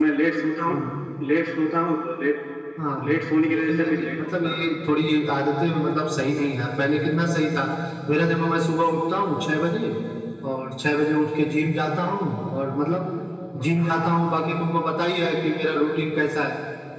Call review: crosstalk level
present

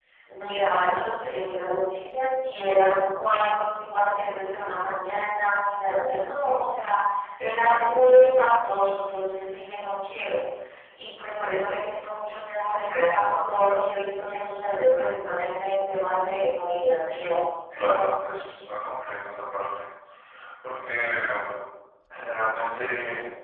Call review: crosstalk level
present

